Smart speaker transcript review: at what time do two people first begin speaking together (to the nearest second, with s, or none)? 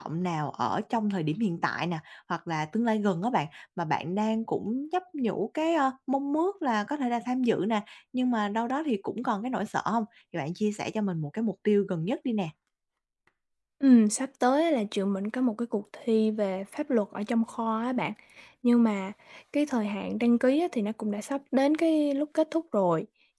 none